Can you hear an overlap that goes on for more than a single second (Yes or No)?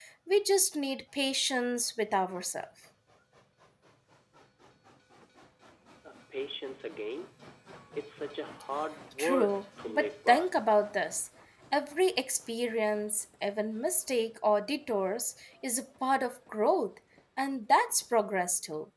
Yes